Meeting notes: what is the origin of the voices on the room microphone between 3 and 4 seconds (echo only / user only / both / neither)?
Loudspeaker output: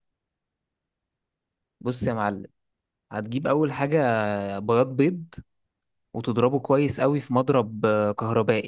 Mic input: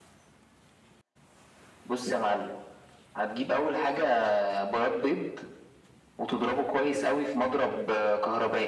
echo only